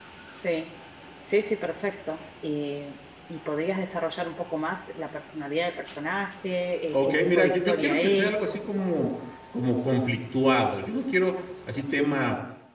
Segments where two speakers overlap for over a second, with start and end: 6.9-8.6

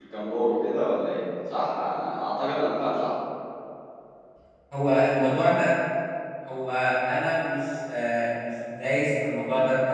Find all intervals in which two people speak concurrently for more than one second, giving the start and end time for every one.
none

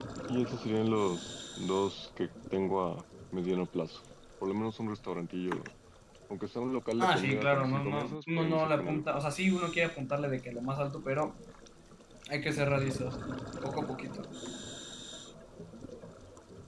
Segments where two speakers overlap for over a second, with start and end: 7.0-9.0

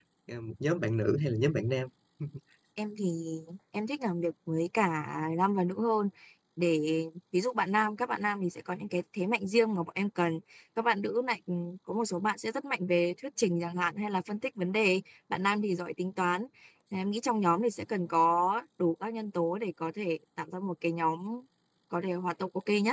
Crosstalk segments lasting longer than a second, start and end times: none

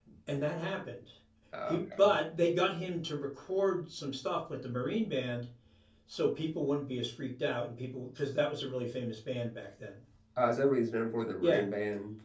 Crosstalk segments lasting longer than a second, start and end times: none

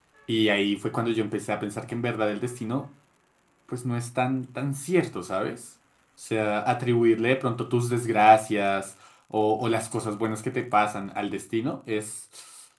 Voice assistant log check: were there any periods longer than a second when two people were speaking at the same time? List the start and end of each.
none

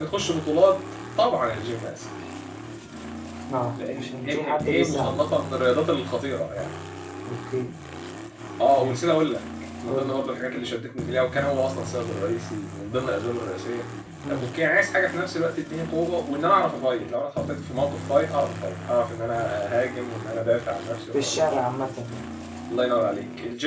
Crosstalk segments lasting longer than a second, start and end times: 4.0-5.2

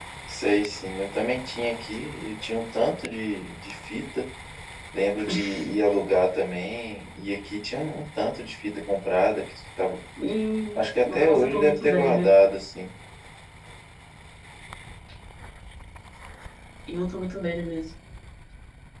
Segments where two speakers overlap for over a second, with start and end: 10.8-12.2

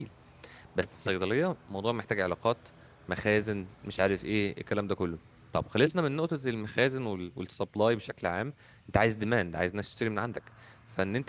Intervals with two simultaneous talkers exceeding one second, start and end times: none

